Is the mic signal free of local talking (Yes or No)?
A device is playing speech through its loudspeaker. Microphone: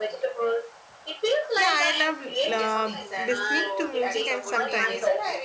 No